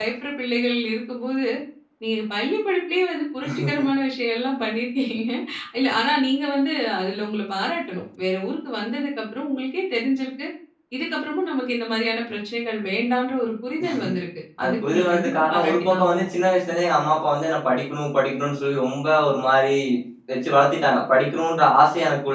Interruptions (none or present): present